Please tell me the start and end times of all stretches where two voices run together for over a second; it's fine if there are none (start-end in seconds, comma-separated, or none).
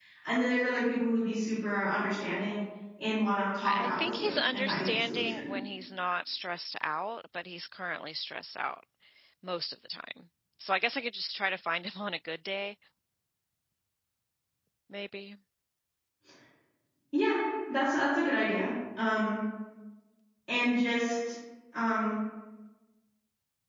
3.6-5.5